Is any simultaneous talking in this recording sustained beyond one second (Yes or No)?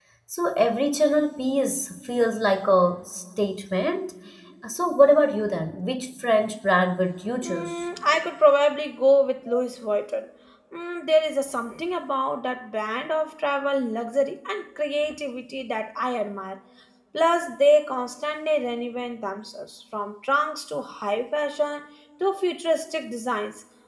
No